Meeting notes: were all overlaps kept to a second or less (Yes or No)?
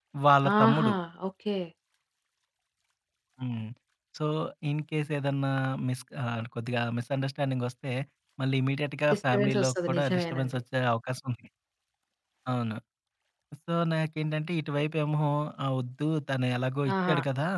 No